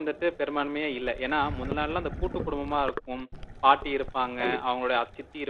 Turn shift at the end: No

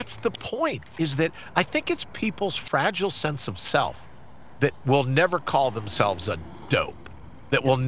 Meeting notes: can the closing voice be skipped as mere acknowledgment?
Yes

